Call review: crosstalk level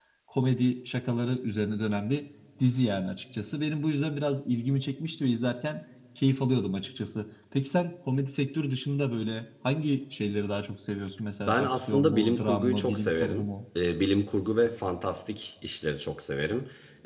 present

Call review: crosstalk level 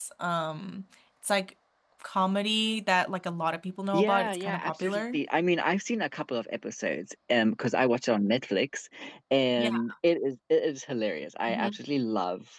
present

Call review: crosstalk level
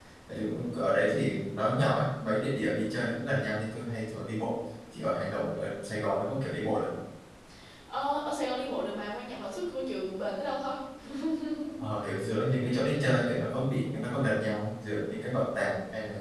none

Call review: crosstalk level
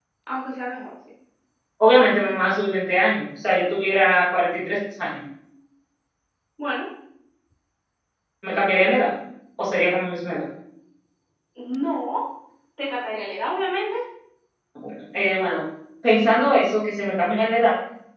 none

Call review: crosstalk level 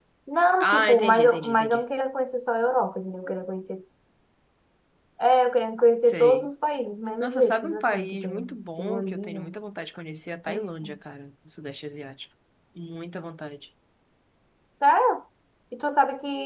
present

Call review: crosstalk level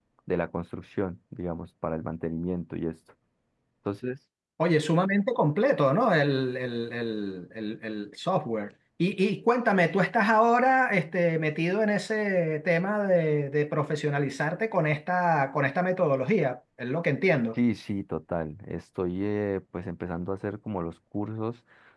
none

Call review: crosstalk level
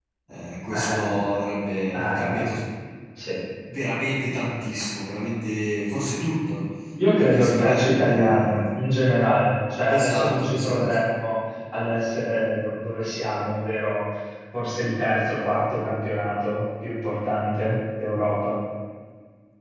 present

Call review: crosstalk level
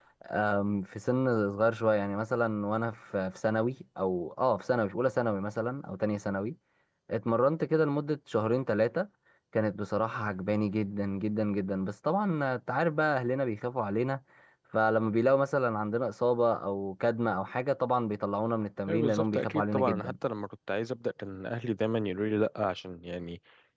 present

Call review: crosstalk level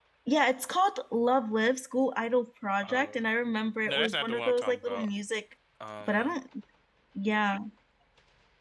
present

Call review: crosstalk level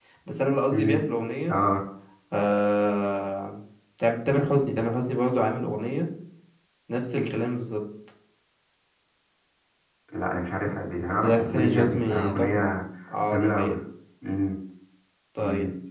present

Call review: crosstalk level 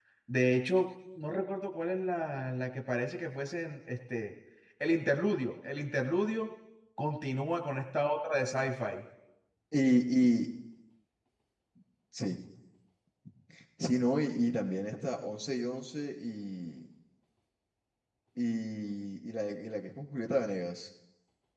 none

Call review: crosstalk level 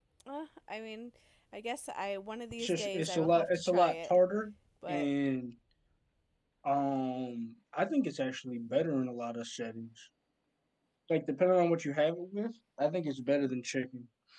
present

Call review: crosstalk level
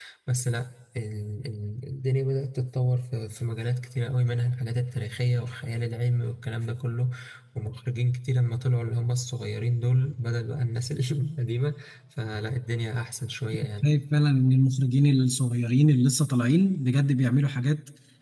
none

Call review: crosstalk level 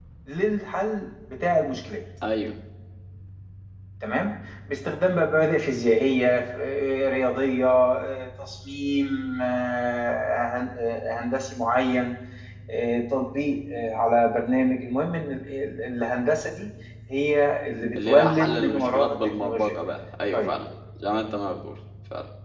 present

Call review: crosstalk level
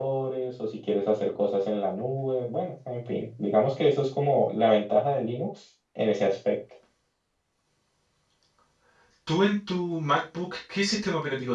none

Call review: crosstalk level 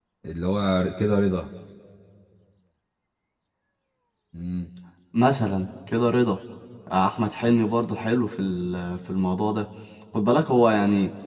none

